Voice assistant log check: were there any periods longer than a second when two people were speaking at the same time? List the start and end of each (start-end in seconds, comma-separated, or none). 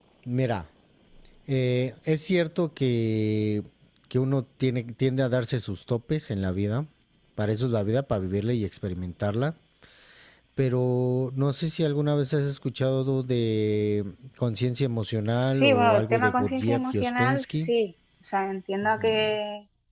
15.5-17.7